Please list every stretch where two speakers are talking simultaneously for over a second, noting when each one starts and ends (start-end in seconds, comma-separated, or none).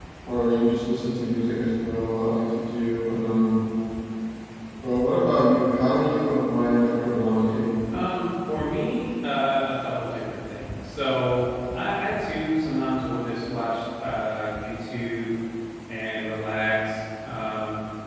none